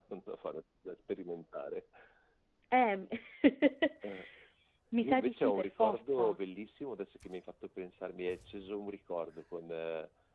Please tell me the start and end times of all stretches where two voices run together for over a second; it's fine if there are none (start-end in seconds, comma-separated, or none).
5.0-6.4